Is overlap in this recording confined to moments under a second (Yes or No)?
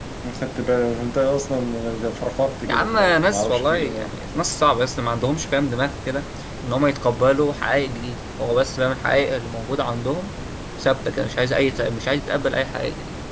No